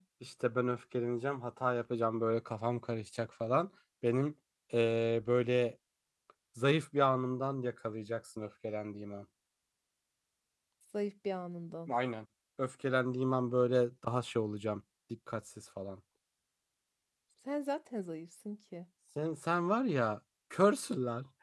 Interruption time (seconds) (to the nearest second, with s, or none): none